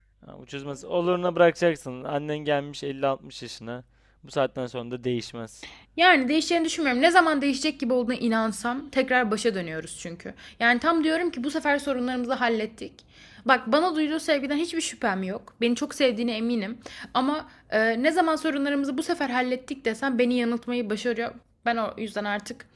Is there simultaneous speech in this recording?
No

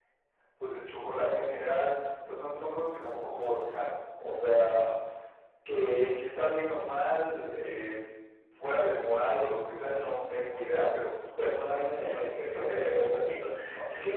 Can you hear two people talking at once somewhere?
Yes, from 11.7 s

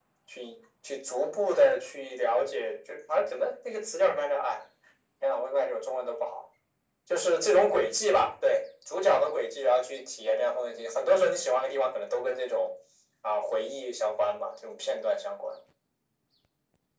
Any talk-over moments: No

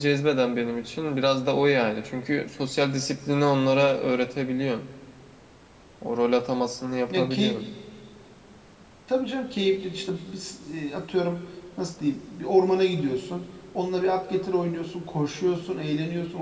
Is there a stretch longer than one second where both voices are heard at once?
No

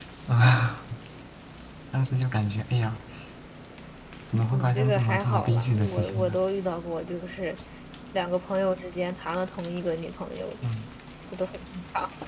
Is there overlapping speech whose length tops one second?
Yes, from 4.5 s

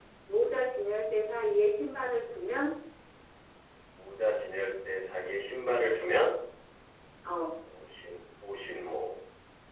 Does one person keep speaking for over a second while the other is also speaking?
No

